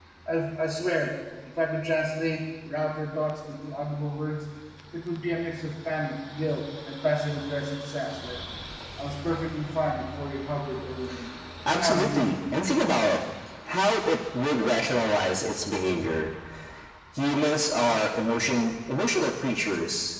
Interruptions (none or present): present